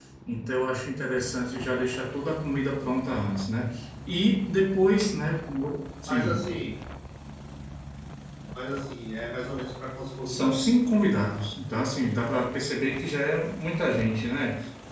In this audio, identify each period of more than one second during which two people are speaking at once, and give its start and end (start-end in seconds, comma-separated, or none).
none